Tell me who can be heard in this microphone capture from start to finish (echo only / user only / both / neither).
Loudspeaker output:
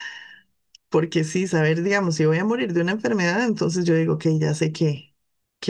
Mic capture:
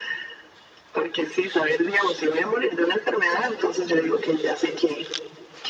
echo only